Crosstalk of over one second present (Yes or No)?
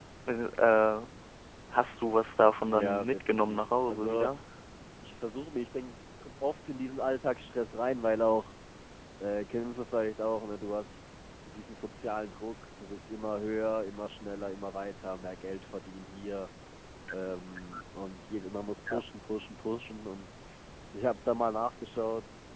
Yes